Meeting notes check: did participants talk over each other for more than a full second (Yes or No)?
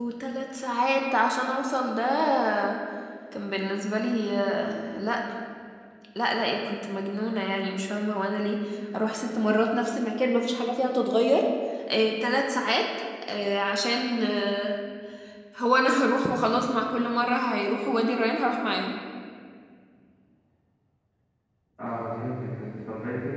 No